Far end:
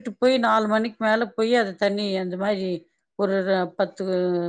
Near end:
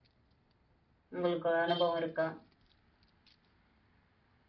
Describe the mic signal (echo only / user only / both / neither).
user only